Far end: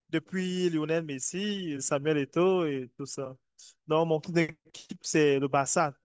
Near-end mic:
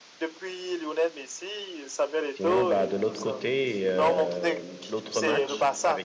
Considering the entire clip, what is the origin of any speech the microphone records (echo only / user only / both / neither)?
both